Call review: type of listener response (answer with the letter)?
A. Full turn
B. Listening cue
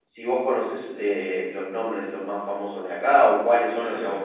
A